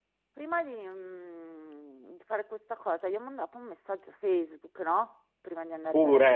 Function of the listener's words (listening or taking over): listening